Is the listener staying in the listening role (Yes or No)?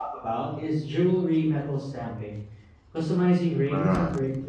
Yes